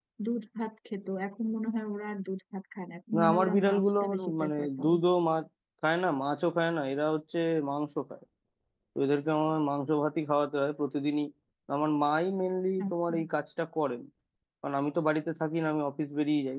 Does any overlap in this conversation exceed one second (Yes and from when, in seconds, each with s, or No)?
Yes, from 3.2 s